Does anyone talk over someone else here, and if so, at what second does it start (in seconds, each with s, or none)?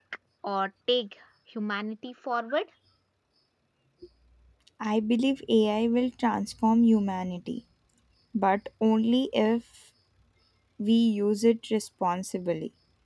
none